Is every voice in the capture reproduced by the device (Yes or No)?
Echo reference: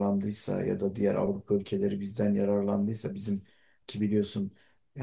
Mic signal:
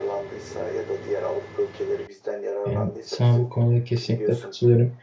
No